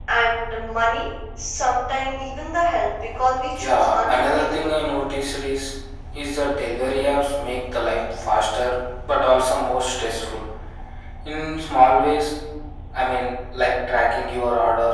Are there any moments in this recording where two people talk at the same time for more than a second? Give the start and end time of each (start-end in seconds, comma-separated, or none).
3.6-4.8